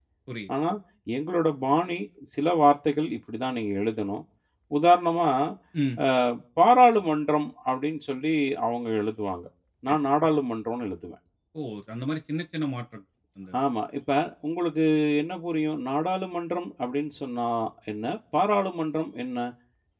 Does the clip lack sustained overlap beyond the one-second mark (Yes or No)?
Yes